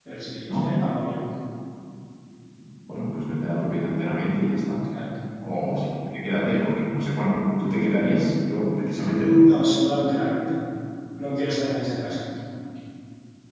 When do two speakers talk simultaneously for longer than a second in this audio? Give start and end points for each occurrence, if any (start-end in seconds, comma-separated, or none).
none